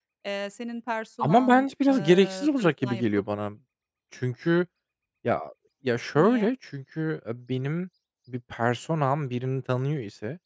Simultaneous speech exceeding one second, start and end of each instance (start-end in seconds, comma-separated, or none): 1.9-3.2